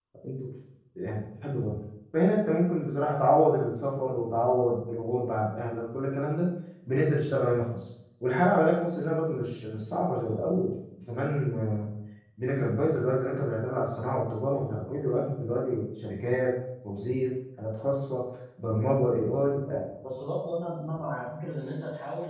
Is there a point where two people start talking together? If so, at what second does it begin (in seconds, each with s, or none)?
none